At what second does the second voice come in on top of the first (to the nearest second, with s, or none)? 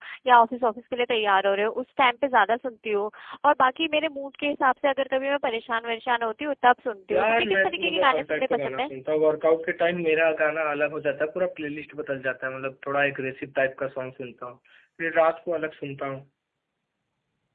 7 s